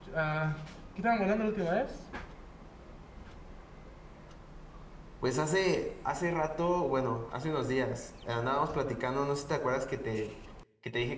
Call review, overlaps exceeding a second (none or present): none